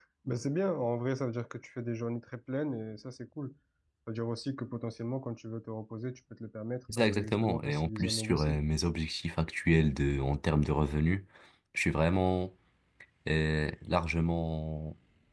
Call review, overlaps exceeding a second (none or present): present